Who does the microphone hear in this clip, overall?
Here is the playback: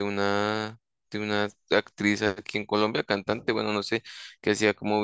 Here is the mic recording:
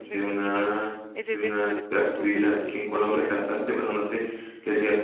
both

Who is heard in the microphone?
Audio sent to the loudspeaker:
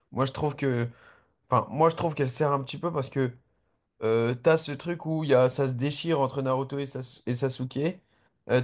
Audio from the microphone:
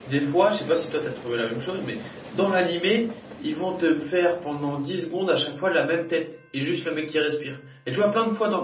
user only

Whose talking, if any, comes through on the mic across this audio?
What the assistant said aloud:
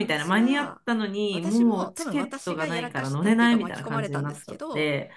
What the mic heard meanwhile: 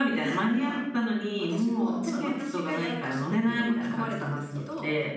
echo only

